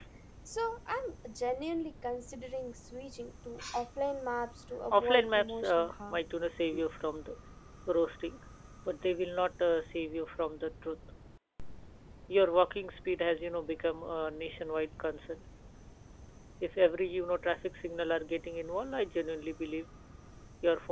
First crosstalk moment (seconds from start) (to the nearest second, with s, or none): 5 s